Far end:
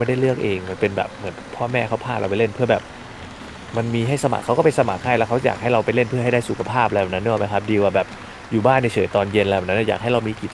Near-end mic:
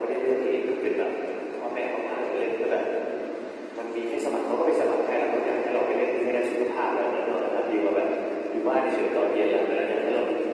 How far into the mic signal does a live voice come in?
none

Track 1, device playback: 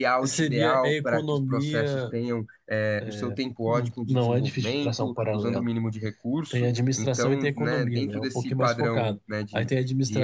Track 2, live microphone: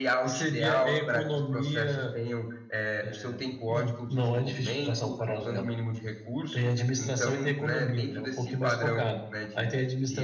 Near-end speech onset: none

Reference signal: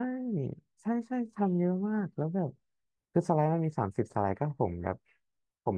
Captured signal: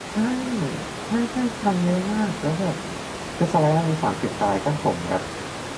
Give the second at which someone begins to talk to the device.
none

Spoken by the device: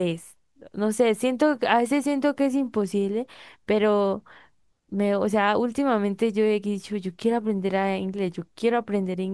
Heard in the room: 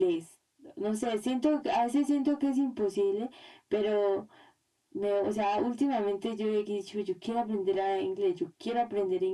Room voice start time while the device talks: none

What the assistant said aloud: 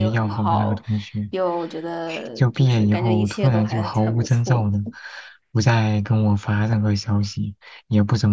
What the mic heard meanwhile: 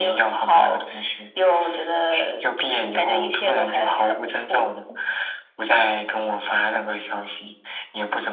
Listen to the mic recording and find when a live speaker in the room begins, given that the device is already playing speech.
none

